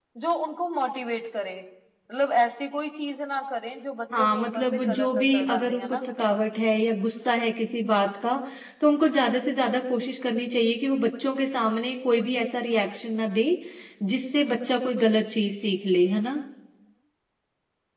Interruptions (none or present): present